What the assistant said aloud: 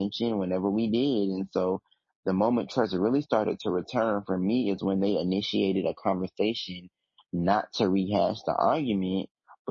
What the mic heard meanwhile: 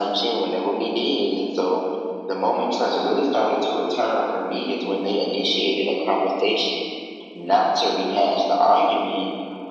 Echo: present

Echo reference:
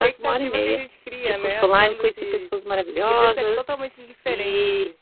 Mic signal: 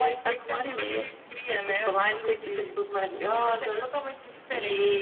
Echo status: present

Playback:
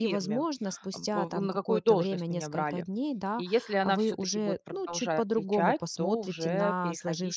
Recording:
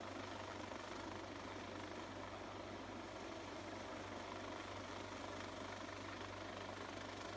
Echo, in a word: none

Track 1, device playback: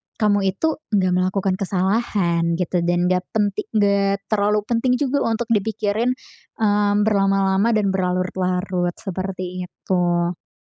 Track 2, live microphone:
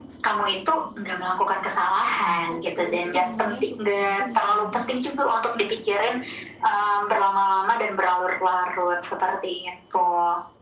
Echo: present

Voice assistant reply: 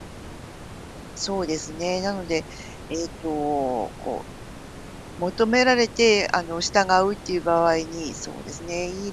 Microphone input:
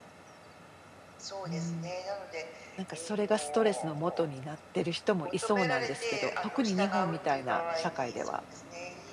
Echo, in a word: present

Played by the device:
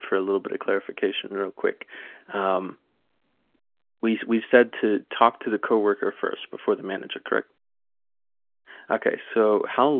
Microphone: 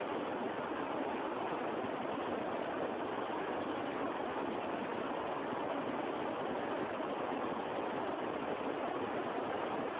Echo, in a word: none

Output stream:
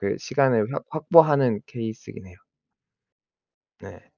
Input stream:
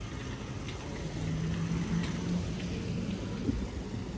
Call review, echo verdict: none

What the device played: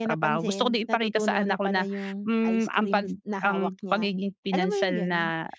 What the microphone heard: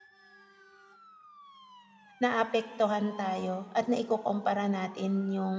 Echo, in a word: none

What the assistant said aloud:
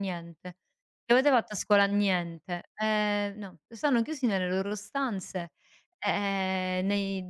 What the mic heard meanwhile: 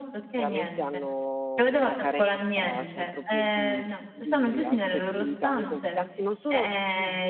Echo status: present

